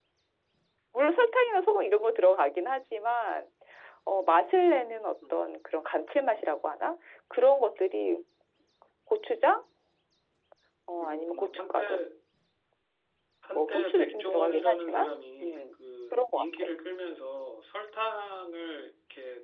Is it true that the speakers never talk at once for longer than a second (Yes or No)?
No